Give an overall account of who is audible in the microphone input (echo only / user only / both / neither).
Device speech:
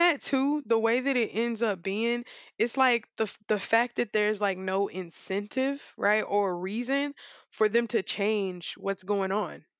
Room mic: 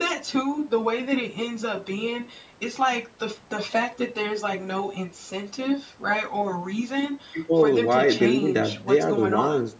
both